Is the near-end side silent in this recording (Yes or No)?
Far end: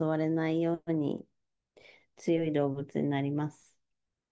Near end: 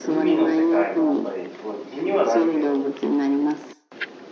No